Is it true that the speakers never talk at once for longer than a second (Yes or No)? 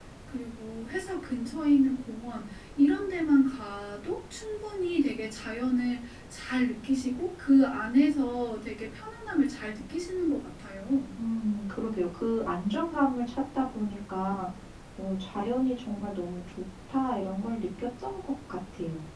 Yes